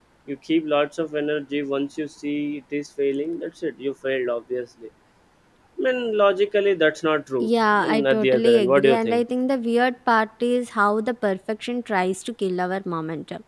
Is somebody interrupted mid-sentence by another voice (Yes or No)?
Yes